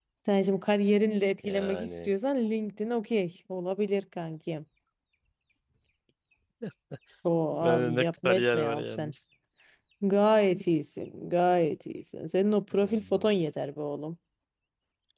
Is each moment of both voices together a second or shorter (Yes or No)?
No